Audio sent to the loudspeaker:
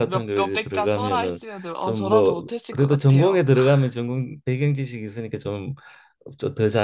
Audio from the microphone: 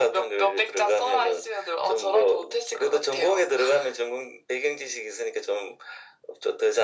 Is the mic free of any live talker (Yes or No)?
Yes